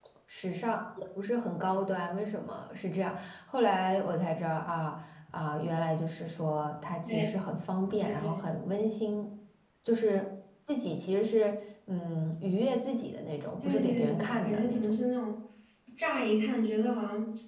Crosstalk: present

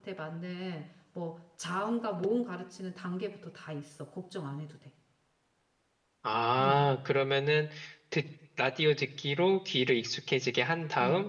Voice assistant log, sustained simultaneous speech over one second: none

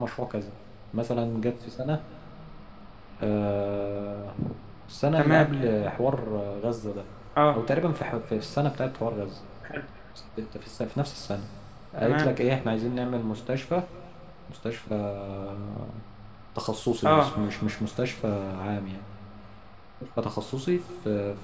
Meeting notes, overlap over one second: none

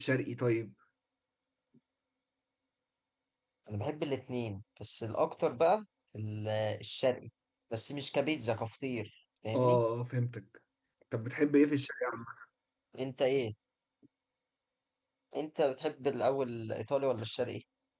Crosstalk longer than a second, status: none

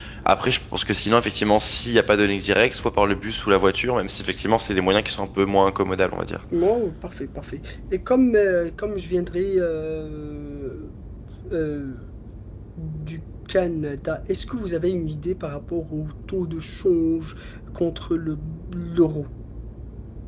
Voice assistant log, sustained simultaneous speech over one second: none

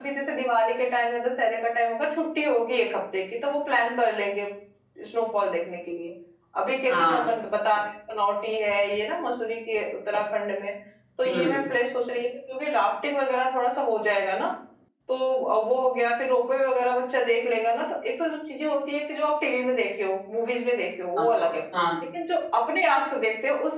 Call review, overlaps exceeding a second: none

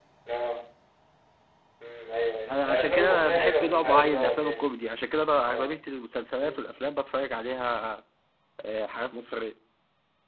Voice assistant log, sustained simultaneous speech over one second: present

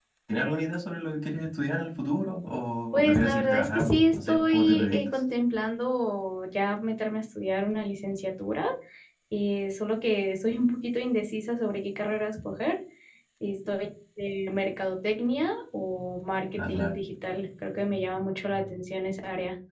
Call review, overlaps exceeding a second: present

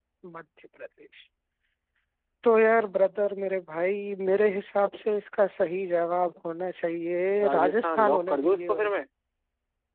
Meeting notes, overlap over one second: present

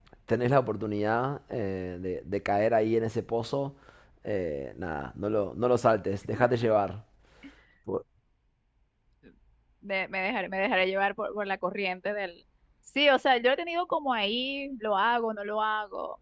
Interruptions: none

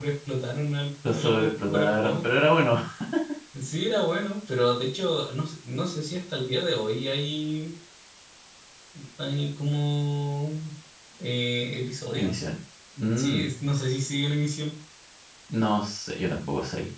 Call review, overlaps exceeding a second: present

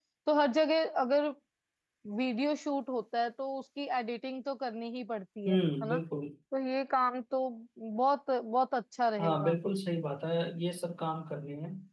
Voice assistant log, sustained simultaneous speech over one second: none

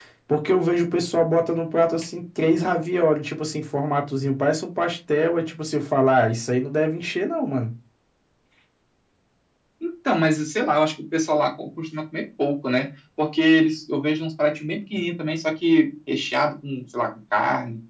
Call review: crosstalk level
none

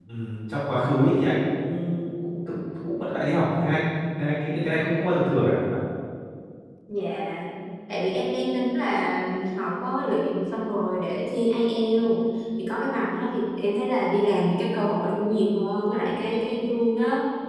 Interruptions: none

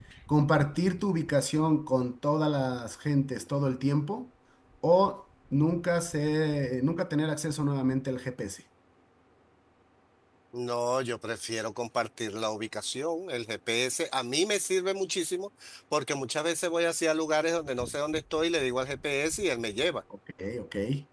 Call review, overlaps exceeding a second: none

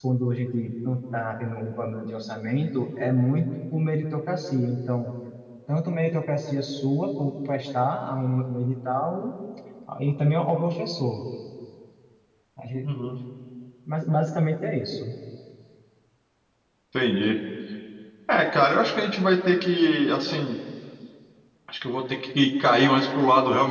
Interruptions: none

